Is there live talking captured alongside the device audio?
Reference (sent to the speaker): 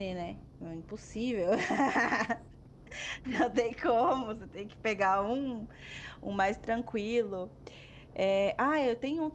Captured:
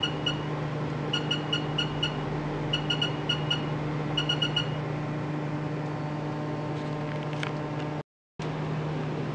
No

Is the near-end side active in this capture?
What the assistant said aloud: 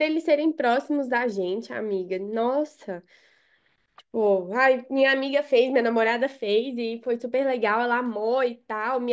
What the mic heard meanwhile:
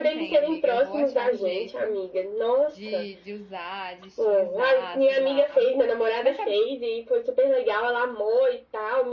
Yes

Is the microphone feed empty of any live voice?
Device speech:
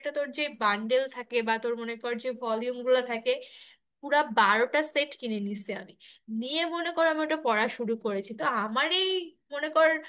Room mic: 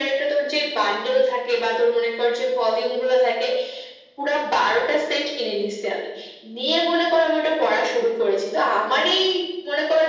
Yes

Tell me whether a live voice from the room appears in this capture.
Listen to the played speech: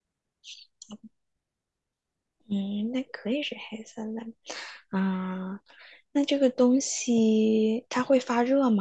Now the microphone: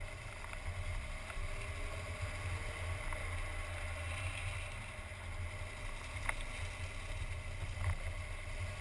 No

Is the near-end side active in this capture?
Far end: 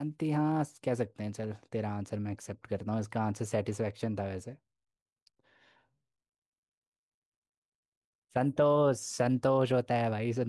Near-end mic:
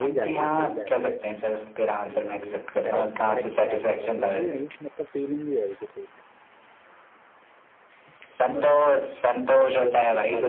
Yes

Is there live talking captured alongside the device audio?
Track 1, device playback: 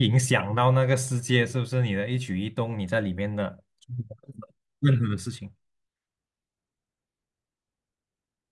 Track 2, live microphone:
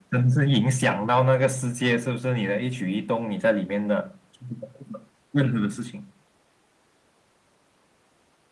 No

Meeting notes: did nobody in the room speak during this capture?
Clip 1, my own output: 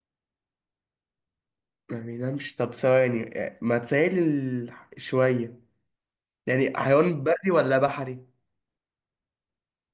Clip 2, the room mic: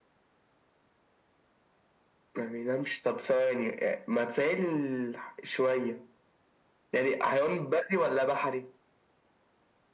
Yes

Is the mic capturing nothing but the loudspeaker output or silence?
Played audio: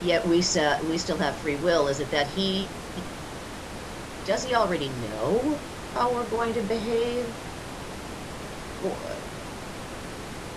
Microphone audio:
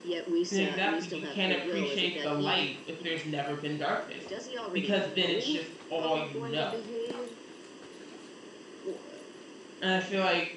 No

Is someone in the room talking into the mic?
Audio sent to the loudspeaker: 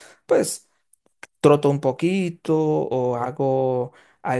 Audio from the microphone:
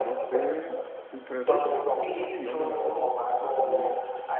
Yes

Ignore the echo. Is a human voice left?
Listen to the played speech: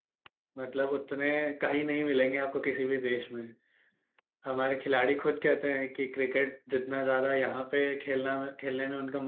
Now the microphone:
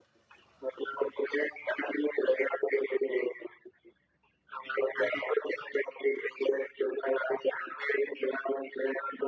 No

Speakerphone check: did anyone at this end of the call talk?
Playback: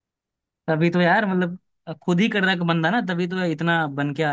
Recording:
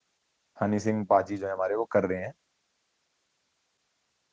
Yes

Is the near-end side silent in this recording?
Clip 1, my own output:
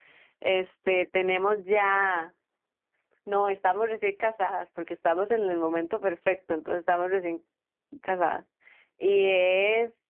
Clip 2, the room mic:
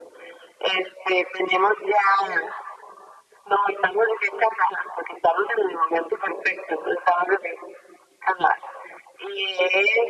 Yes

